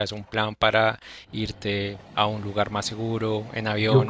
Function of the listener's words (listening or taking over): taking over